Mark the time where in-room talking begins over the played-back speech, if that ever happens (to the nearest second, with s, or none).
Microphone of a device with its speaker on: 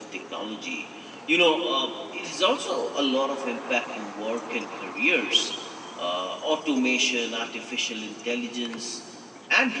none